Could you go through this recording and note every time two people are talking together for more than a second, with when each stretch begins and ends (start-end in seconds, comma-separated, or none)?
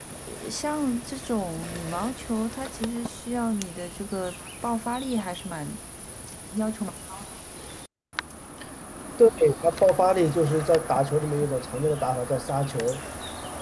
none